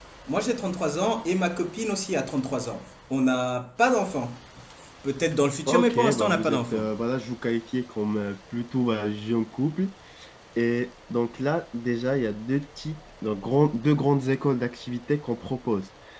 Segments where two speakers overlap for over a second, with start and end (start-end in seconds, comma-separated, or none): 5.7-6.9